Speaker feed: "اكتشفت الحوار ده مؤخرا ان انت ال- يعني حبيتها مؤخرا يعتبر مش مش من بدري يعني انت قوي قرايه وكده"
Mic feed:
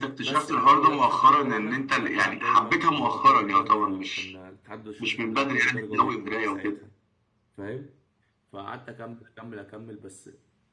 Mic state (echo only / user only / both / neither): both